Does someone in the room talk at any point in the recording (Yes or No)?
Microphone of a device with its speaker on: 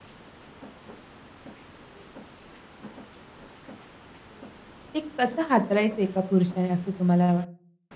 Yes